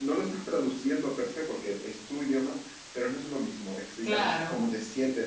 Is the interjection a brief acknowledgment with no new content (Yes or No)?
Yes